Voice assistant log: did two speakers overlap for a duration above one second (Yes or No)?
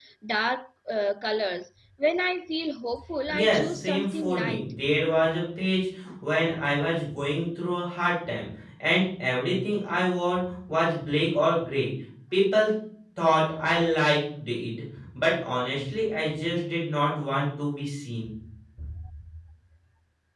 Yes